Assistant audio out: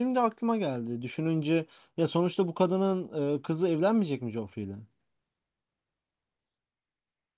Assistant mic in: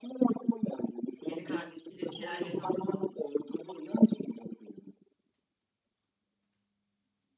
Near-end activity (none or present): present